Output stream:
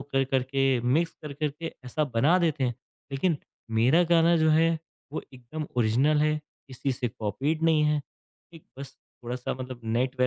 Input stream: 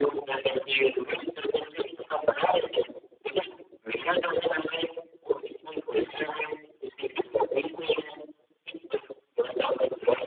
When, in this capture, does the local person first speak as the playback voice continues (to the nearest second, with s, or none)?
none